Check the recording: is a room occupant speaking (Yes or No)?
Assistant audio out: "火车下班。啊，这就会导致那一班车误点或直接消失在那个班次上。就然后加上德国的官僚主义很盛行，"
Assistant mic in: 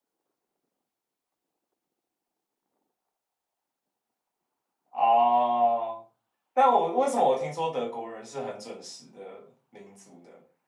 Yes